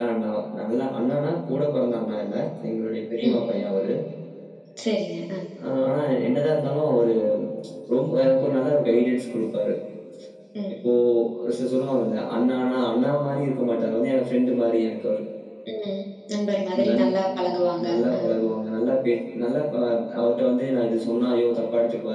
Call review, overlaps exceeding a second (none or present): none